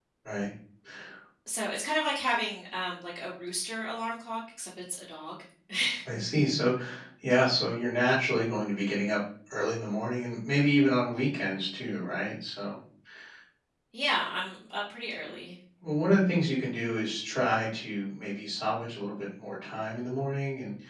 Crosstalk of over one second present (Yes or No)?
No